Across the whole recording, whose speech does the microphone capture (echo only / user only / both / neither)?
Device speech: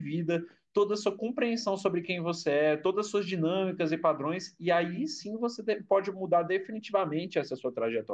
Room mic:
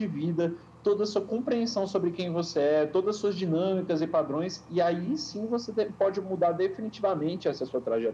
echo only